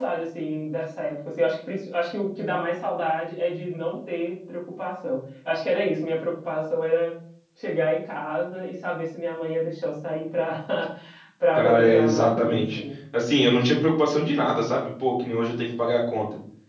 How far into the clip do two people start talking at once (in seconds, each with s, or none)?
11.6 s